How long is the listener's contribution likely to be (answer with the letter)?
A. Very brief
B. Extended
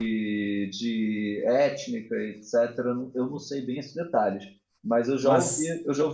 A